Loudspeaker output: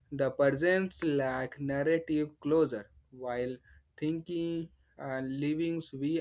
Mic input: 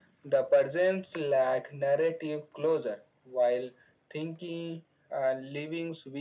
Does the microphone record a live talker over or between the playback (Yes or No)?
No